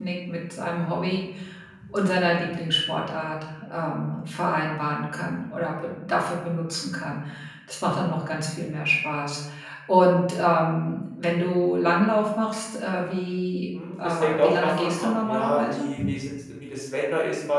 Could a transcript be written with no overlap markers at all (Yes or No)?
No